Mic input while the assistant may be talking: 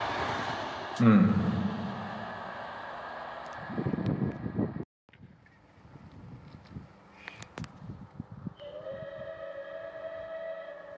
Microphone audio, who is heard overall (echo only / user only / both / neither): user only